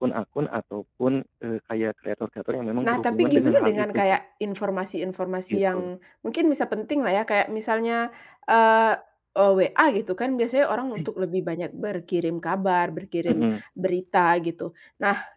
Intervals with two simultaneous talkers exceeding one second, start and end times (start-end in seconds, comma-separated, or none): 2.8-4.2